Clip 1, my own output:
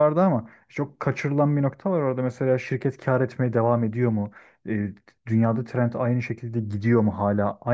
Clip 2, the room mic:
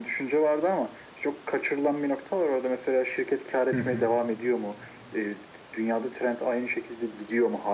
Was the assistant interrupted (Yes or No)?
Yes